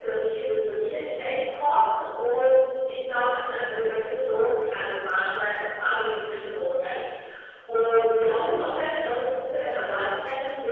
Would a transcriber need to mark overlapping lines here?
No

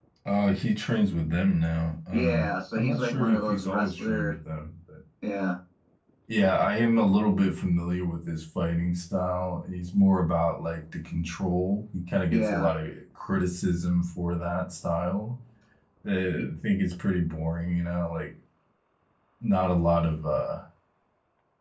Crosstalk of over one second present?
Yes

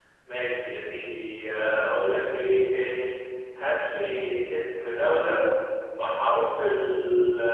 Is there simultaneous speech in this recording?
No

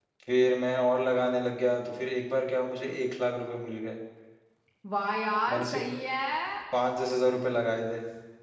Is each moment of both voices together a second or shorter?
Yes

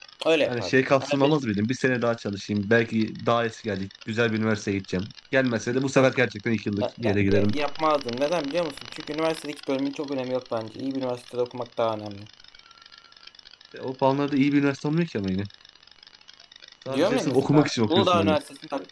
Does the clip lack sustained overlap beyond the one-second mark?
No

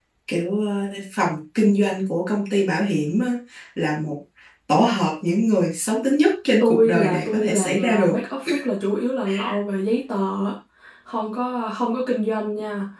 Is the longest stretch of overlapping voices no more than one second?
No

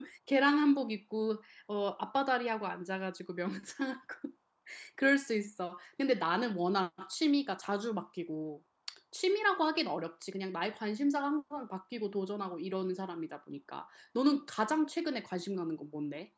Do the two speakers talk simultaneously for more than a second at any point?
No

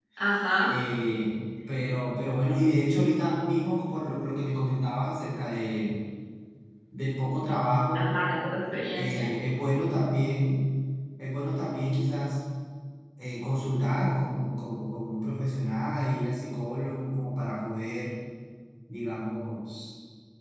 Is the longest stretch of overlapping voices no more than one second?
Yes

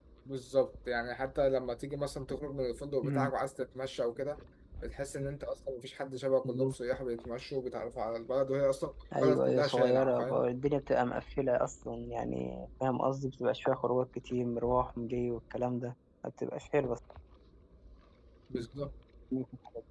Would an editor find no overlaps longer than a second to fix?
No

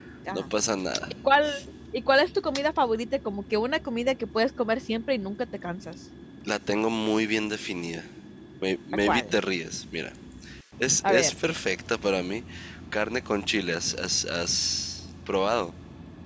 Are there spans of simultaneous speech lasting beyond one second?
No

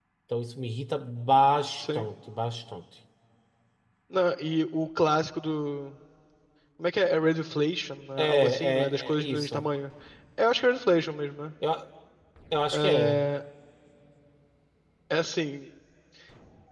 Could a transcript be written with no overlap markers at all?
No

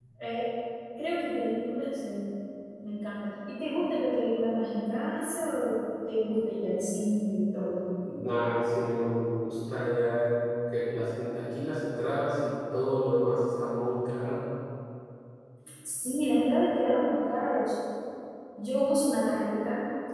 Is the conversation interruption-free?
Yes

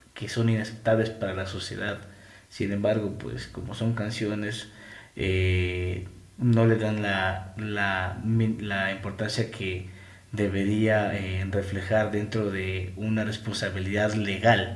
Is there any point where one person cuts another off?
No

